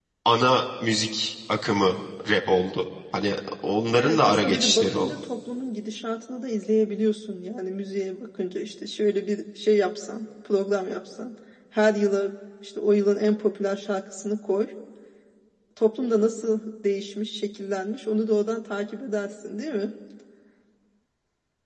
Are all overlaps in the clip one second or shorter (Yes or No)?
No